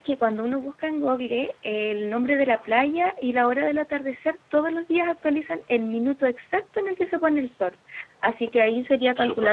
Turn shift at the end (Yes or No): No